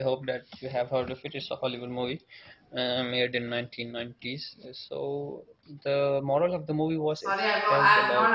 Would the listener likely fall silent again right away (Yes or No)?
No